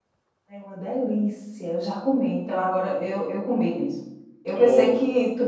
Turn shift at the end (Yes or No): No